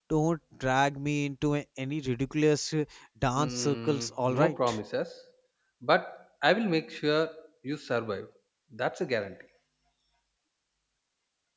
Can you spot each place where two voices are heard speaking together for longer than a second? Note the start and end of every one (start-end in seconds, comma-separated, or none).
3.4-4.8